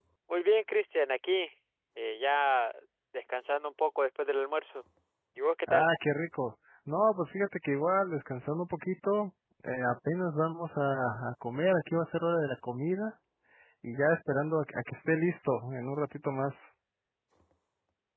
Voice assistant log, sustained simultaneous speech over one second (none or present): none